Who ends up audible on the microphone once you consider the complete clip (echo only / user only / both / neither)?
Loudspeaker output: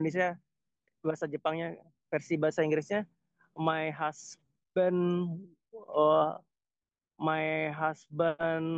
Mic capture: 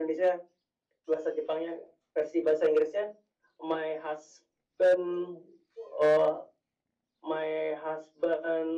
echo only